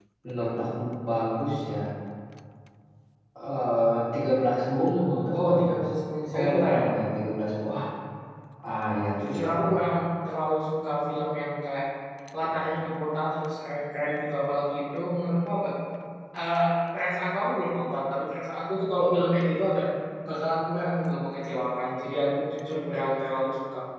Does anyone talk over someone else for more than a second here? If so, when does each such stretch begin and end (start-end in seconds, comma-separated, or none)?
none